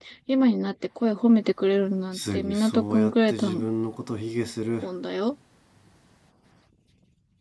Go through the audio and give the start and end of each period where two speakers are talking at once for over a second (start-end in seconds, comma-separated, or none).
2.1-3.5